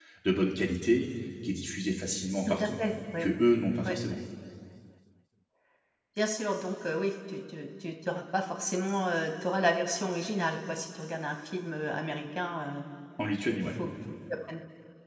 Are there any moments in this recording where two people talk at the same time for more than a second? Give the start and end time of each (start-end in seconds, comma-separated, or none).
none